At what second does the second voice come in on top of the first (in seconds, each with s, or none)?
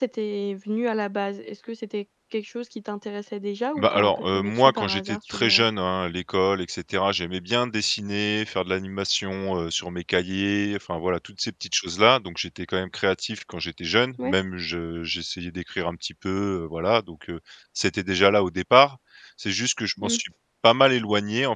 3.8 s